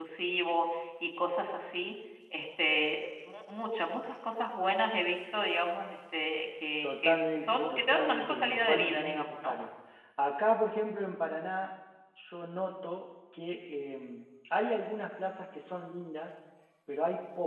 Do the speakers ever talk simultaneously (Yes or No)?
Yes